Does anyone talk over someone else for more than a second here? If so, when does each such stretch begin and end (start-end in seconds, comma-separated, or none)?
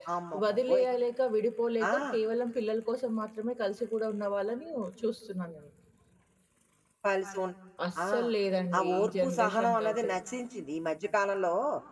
8.8-10.1